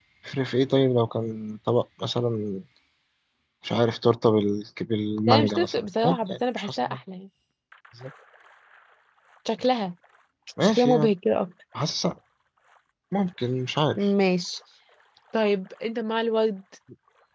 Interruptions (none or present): present